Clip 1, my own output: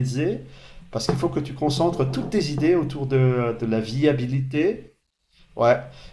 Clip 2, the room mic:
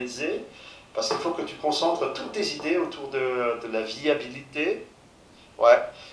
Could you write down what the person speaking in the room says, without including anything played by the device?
none

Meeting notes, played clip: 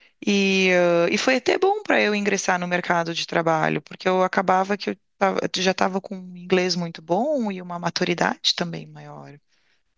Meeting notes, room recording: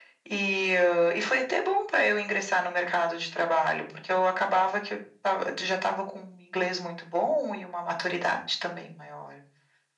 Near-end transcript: none

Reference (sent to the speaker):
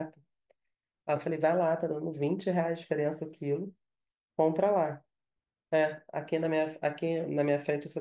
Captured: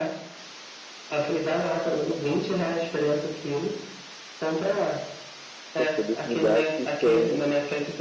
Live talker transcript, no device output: pra poder me dar a picanha.

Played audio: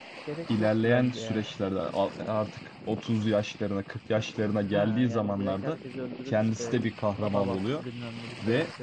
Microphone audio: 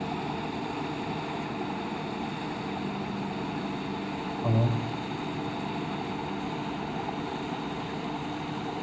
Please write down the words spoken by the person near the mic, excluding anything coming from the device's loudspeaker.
tamam.

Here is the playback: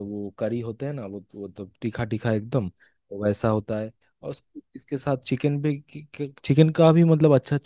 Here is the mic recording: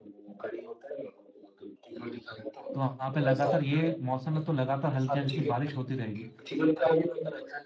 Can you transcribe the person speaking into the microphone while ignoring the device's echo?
तो वहां पे लगातार ये मौसम में तो लगातार हल्की हल्की बारिश होती रहेगी

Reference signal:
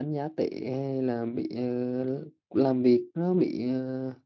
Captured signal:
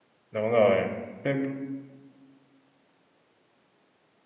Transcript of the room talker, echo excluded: đúng rồi Thế

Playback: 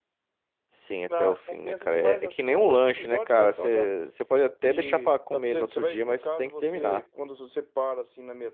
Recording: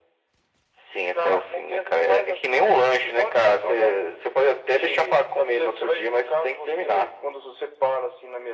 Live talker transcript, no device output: none

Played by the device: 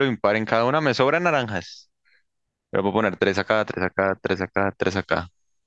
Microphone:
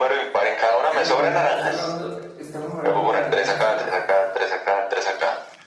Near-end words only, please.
Estamos hablando, está hablando, estamos hablando de naranjas y bolsas.

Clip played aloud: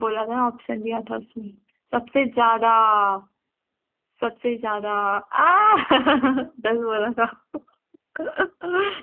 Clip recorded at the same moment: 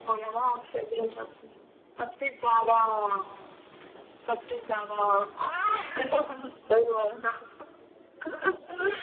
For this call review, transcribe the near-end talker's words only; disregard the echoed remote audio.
none

